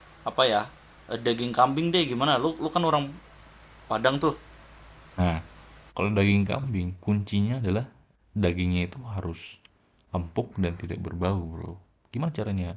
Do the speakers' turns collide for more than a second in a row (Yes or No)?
No